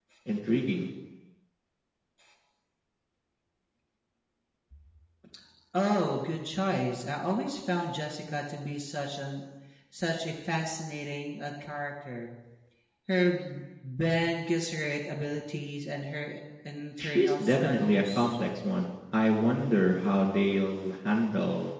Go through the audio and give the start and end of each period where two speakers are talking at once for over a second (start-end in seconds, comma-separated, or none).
17.0-18.4